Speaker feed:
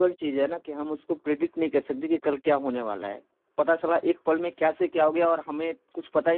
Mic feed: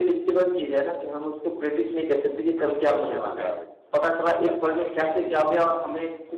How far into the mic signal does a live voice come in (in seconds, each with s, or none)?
2.8 s